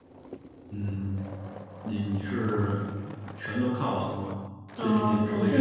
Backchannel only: No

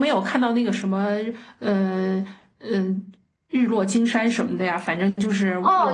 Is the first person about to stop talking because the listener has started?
Yes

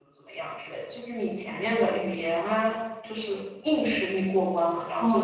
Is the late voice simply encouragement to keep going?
No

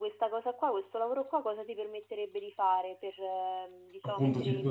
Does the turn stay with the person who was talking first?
No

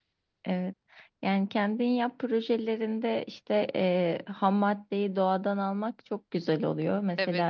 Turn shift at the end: No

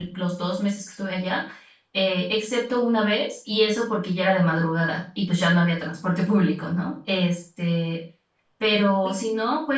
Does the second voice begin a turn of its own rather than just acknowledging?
No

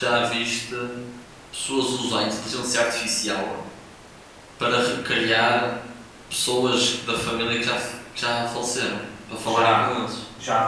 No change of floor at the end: No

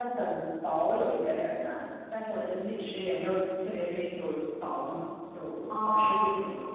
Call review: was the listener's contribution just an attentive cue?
No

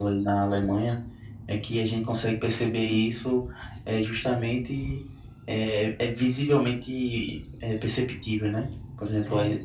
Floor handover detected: No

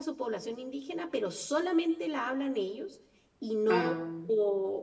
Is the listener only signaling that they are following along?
Yes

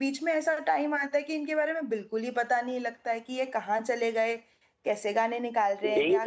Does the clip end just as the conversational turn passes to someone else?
Yes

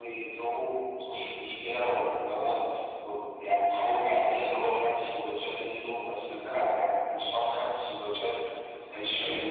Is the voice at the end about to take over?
No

